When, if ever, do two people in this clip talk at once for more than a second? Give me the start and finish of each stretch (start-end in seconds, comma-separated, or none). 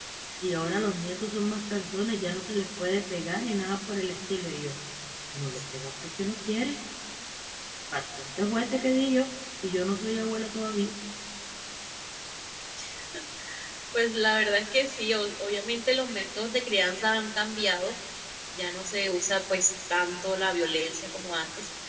none